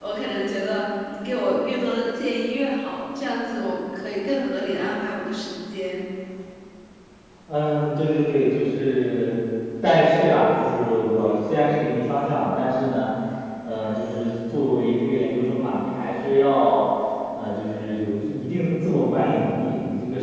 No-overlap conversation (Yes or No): Yes